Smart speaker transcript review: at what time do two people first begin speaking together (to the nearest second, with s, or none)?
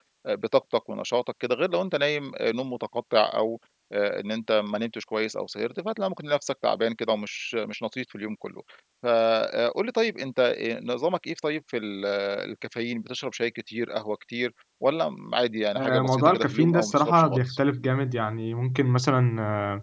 16 s